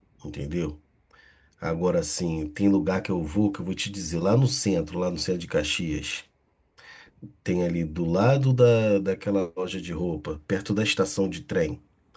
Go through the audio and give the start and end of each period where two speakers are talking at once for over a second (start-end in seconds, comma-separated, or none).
none